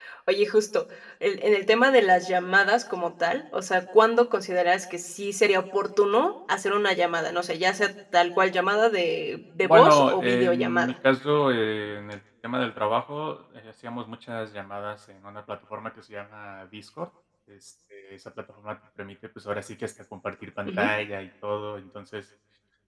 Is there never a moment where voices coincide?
No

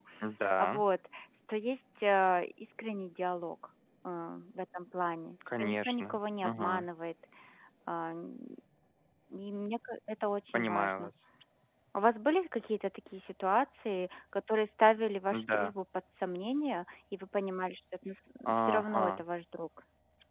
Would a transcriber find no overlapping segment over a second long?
No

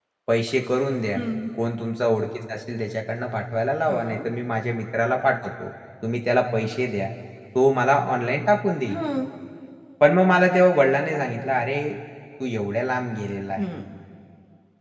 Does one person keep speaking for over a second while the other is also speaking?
No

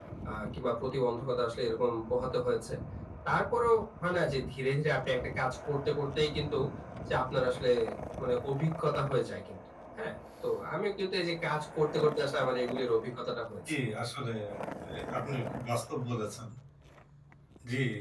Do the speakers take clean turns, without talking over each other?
Yes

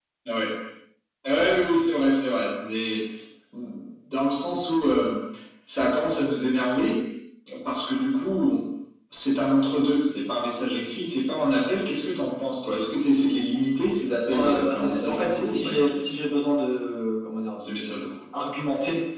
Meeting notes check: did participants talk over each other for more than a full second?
Yes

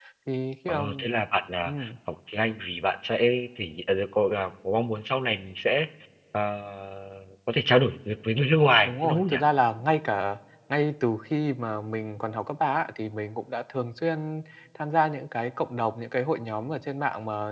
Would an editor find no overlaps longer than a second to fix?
Yes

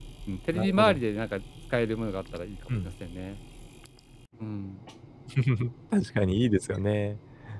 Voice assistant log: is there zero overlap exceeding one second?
Yes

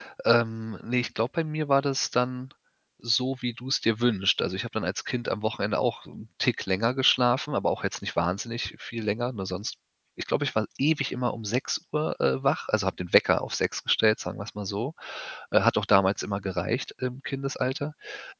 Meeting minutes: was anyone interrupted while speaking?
No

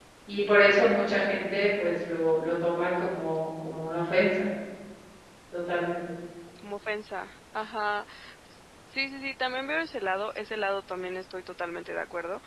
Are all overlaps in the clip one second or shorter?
Yes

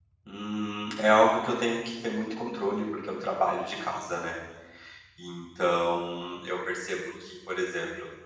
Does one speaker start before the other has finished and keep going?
No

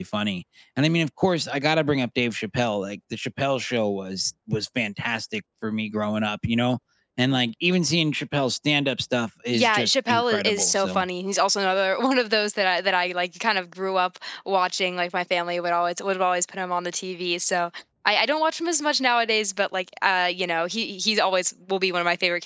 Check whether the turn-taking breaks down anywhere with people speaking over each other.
Yes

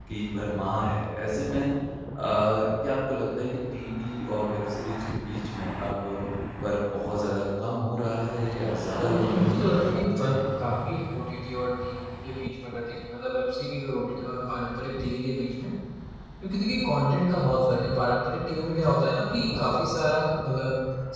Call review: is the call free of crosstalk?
No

